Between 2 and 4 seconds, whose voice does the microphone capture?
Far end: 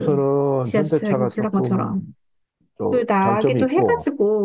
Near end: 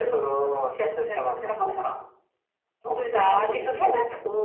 both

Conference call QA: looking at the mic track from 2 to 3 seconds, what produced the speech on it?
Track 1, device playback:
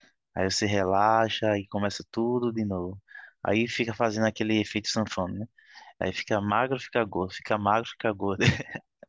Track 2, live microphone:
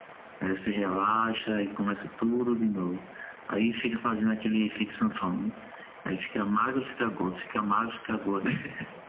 echo only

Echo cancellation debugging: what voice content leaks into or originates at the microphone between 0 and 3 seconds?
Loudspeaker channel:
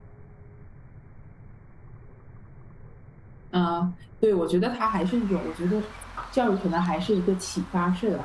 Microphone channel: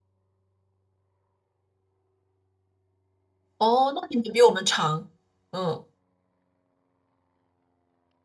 neither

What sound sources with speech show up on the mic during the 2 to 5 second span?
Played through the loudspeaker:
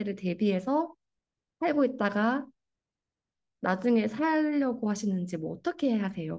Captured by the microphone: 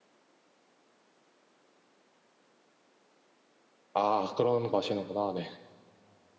user only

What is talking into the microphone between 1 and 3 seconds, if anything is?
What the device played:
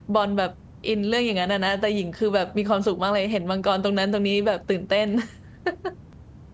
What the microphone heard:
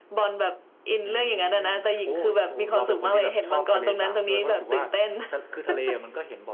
both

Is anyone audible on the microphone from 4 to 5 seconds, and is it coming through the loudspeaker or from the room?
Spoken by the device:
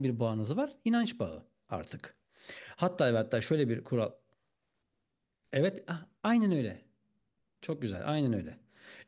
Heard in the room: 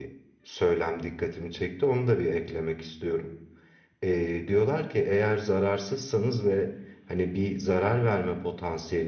user only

